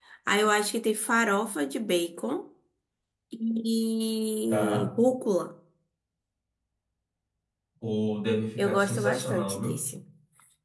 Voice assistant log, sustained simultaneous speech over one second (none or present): present